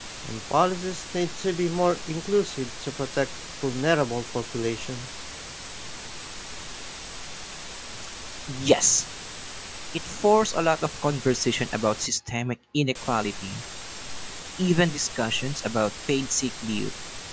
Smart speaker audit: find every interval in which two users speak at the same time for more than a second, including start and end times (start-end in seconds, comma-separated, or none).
none